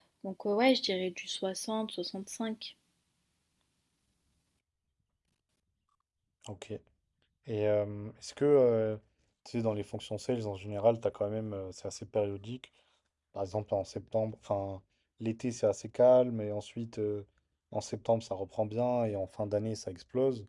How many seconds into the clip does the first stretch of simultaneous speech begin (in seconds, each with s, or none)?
none